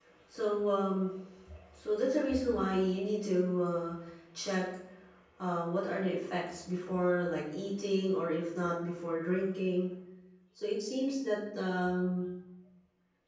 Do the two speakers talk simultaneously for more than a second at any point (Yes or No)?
No